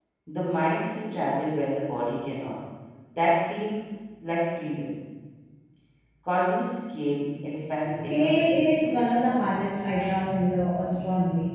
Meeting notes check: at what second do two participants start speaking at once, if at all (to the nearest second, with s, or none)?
8 s